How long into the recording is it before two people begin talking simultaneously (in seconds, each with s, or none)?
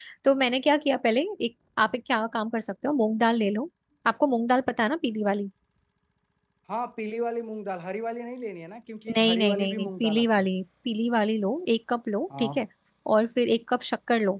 9.2 s